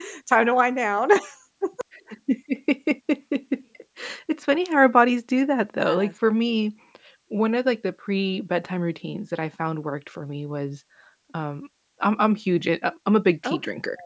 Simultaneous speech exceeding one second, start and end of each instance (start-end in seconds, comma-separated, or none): none